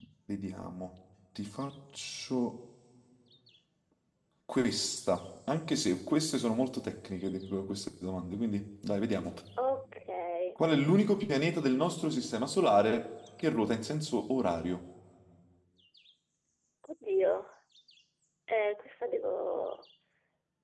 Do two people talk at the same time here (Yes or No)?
No